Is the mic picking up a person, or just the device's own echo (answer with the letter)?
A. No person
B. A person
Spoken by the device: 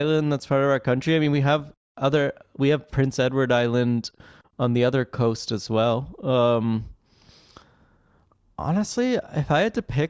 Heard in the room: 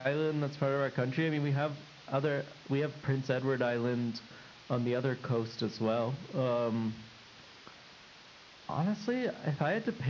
A